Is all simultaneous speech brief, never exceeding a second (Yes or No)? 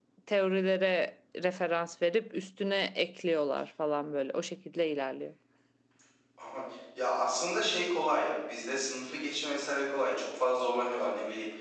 Yes